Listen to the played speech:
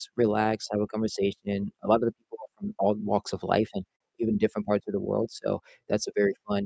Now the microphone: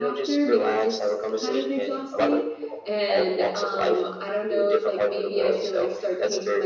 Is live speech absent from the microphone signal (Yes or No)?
No